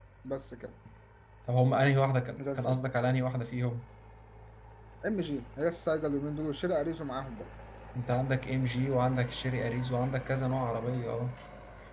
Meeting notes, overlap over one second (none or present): none